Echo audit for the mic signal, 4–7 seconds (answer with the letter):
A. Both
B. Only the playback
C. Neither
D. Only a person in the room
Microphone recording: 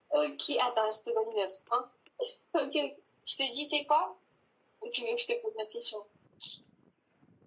B